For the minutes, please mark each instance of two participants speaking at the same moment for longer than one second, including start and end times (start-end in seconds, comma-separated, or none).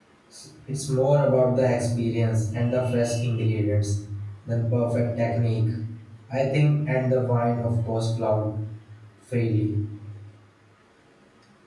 none